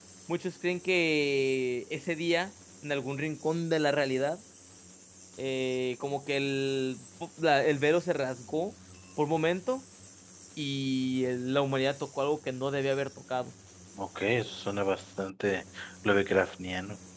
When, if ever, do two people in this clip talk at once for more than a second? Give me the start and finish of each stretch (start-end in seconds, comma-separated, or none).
none